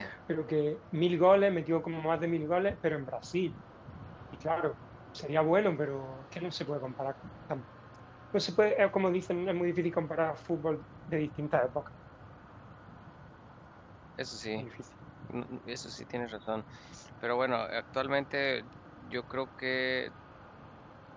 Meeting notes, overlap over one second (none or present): none